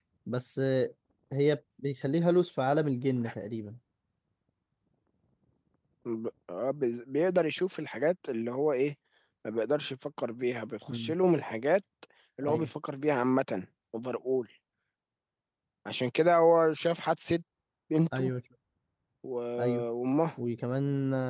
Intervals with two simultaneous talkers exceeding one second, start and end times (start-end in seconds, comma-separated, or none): none